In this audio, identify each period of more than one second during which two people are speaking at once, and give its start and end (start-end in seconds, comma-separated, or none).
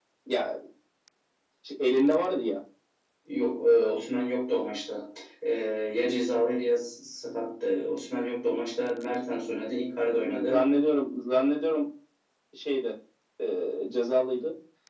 none